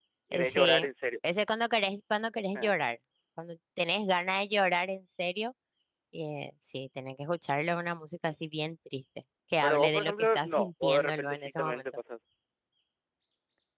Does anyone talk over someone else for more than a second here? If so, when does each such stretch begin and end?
9.6-11.8

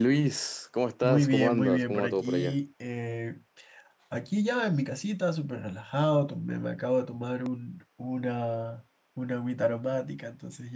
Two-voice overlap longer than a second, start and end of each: 1.0-2.6

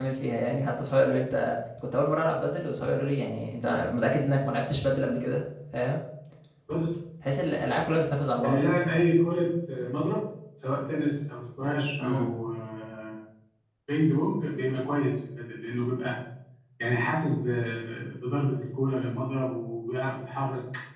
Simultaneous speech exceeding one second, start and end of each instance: none

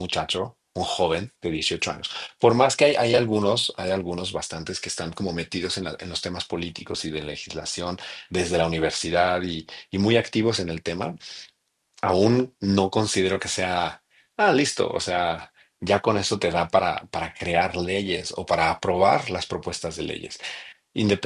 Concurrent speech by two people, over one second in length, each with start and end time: none

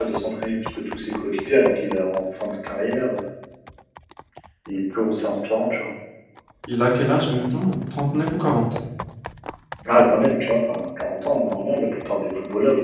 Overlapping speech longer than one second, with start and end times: none

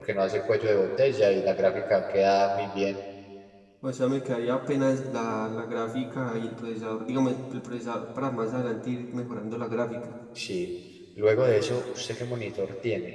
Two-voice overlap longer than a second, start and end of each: none

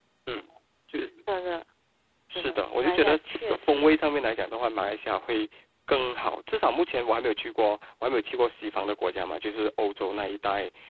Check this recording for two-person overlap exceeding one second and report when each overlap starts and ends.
2.4-3.9

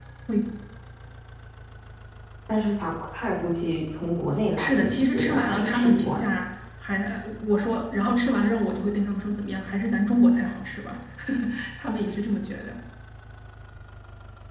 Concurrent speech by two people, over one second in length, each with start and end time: 4.6-6.3

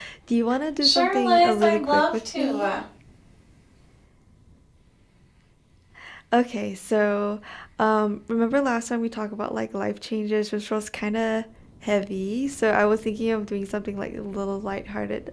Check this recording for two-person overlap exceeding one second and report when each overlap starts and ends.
0.8-2.7

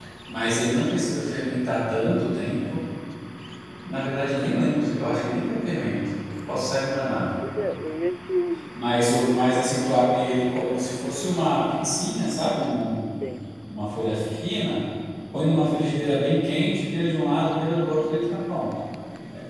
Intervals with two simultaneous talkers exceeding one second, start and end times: none

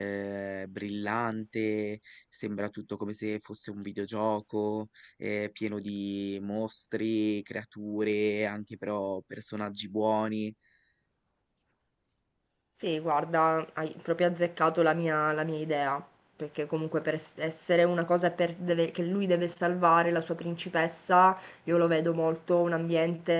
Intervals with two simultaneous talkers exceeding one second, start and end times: none

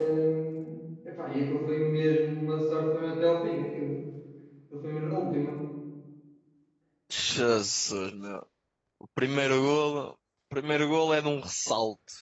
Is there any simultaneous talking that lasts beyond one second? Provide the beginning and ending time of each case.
none

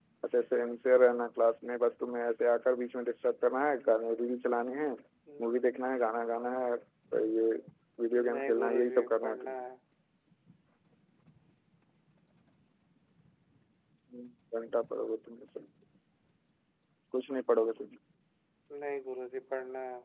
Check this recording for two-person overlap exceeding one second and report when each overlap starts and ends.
8.3-9.5

